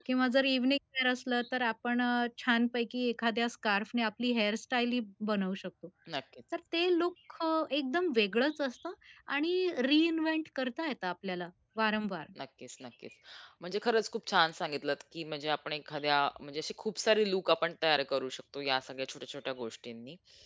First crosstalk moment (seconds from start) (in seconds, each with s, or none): none